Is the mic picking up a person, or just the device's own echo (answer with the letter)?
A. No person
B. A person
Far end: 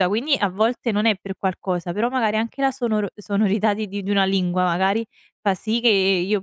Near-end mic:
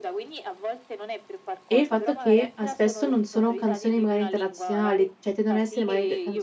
B